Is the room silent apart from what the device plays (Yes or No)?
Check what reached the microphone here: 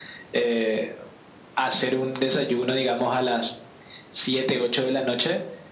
Yes